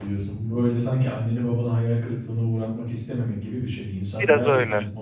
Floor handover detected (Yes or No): No